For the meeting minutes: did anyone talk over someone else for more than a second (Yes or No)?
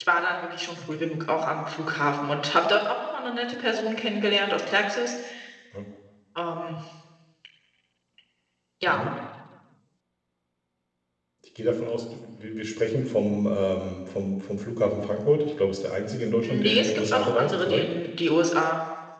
Yes